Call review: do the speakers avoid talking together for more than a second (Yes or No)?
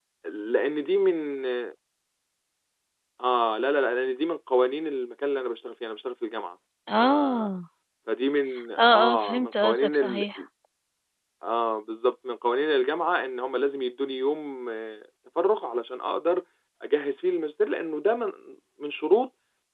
No